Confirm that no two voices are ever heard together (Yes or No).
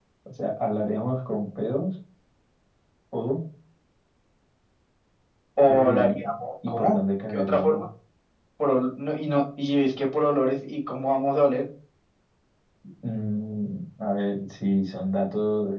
No